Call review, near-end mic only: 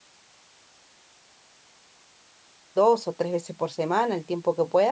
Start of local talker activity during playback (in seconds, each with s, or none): 2.7 s